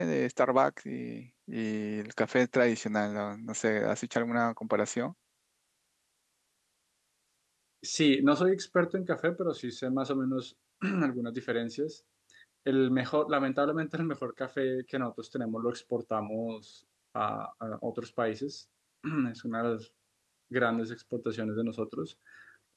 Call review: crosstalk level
none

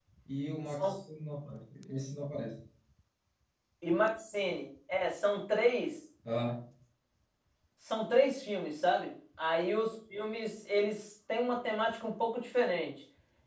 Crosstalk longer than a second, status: none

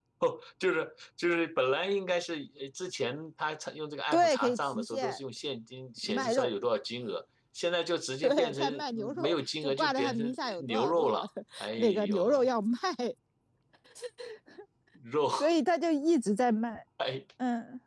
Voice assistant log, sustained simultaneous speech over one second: present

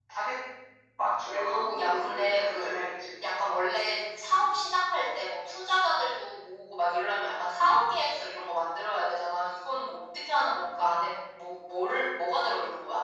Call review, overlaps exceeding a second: present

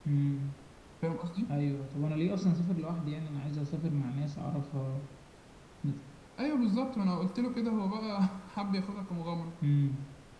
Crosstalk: none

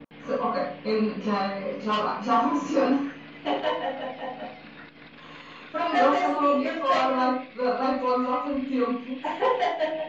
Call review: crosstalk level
present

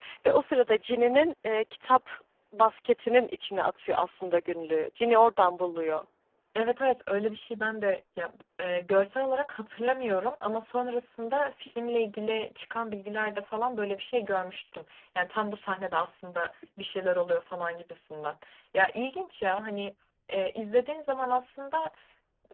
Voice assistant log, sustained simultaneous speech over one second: none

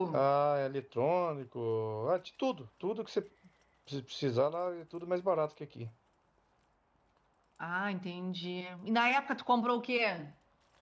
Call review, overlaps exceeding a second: none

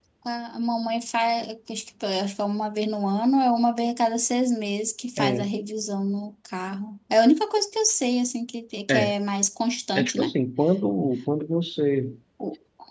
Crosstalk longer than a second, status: none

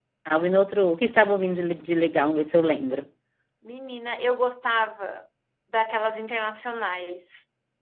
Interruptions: none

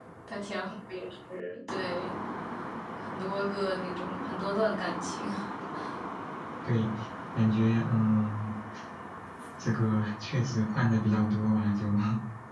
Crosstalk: none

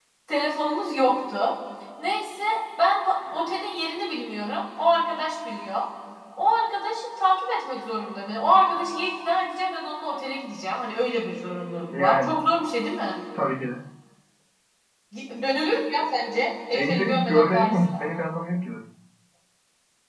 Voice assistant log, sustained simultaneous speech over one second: present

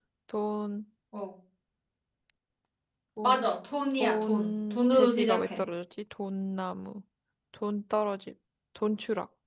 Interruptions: present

